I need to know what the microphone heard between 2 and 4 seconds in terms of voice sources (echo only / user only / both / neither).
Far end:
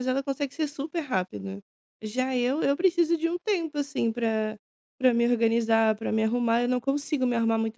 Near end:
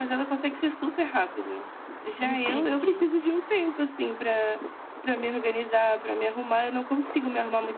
both